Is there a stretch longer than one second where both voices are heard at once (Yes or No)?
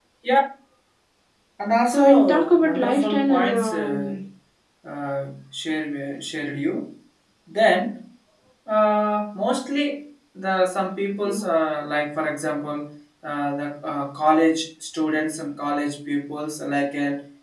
Yes